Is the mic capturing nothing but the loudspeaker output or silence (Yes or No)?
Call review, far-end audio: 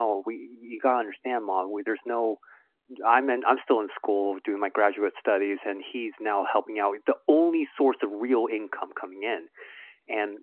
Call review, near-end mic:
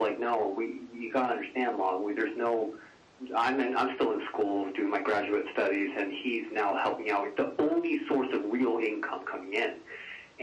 Yes